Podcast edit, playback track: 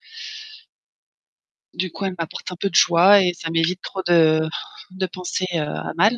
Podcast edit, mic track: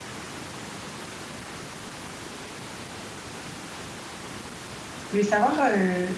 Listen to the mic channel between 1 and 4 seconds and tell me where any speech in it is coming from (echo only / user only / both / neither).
neither